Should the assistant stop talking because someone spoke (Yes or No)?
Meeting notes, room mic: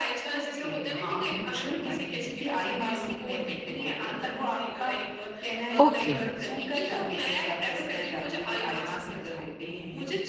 Yes